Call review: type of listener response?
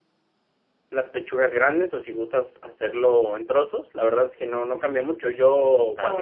listening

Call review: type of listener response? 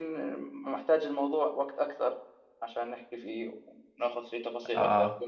listening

